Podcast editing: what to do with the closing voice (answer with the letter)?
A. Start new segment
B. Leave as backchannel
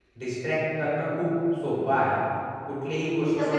B